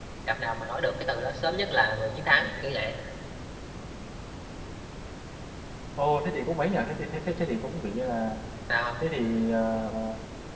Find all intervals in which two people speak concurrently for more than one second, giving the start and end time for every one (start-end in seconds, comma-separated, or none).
none